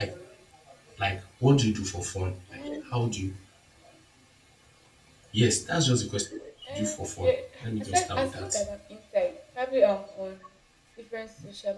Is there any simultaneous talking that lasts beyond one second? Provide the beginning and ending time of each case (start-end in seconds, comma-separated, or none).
6.7-8.6